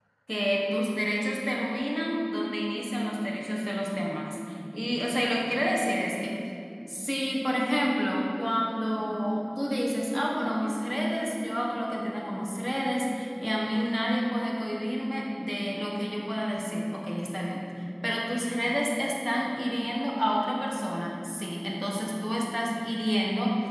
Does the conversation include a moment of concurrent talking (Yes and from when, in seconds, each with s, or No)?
No